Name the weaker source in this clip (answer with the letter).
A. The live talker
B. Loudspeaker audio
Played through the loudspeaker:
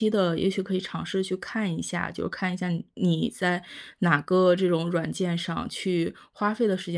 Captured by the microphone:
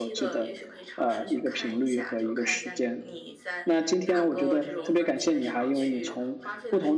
B